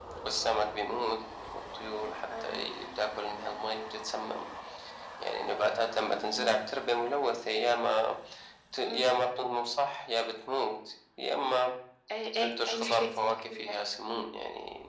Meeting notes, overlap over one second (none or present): present